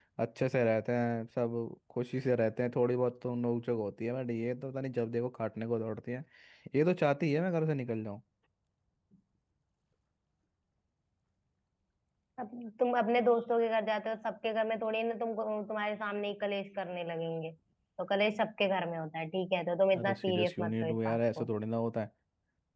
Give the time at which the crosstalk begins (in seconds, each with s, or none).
19.9 s